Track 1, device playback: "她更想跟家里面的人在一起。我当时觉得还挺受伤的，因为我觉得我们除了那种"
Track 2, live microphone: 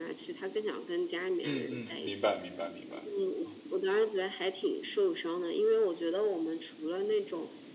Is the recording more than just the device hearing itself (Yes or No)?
Yes